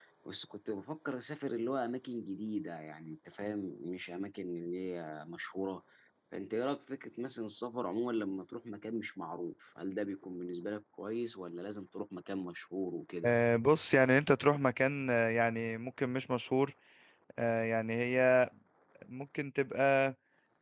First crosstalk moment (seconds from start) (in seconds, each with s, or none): none